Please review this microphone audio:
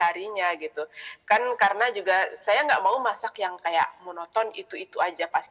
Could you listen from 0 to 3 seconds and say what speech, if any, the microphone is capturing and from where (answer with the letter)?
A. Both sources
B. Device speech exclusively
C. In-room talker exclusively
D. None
B